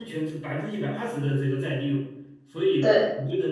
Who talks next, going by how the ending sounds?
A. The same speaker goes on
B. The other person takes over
A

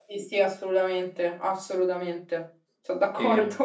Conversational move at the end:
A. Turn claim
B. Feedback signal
A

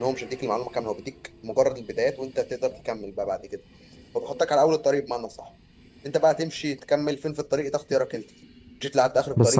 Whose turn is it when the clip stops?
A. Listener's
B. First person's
A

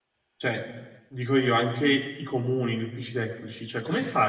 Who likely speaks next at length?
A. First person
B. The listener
A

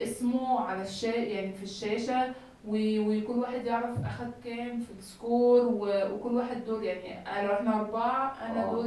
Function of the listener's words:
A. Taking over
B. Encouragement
B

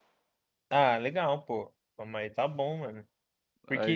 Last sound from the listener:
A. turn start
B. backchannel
B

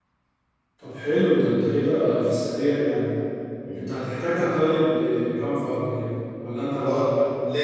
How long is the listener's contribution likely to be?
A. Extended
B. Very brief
A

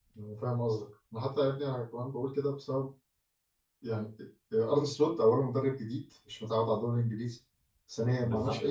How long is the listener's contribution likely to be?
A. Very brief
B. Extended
A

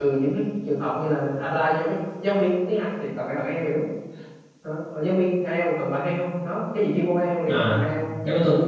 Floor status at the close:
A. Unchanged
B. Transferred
B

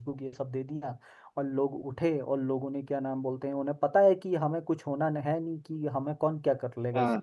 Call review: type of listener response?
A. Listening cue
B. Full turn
A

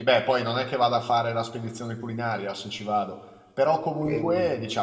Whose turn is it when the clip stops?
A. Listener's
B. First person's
B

